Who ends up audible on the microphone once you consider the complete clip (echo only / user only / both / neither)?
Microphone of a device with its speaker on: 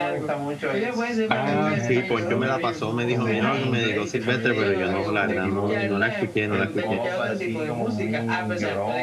both